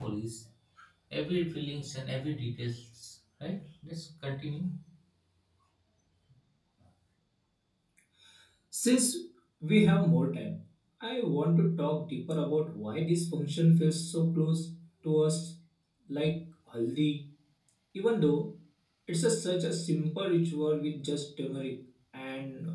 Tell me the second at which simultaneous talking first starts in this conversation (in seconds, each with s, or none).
none